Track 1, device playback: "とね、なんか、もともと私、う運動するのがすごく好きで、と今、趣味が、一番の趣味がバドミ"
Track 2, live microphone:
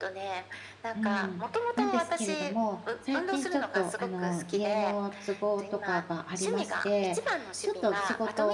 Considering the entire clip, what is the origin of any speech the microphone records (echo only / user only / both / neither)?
both